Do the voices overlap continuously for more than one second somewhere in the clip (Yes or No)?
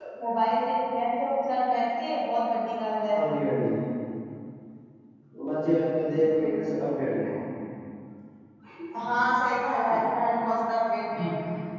No